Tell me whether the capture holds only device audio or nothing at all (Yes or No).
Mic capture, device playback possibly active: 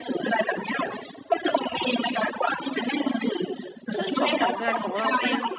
No